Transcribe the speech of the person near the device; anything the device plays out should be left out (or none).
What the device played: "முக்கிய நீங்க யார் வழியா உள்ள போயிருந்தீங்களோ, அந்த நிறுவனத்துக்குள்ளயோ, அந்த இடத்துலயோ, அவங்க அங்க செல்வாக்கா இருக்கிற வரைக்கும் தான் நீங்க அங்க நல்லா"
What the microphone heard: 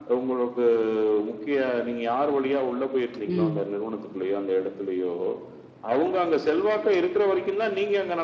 ம்.